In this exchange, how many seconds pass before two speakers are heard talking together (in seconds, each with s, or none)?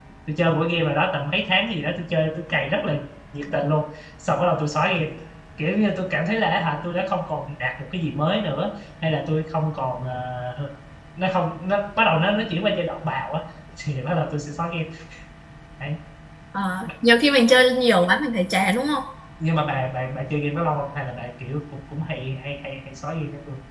none